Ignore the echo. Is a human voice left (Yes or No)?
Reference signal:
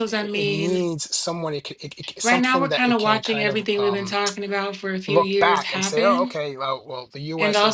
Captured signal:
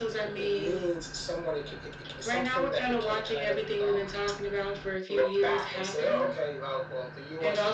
No